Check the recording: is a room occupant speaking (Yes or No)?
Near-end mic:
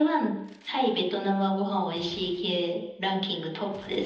No